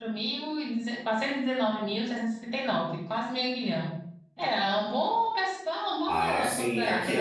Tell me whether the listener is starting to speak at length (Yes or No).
Yes